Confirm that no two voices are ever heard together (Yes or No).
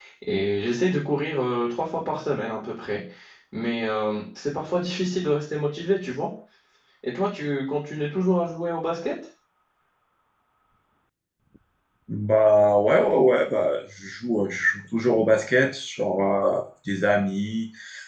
Yes